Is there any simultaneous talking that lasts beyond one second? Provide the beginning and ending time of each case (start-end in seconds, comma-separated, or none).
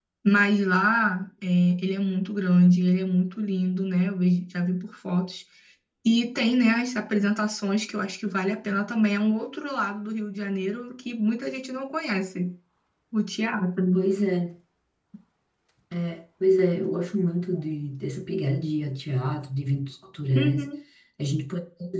none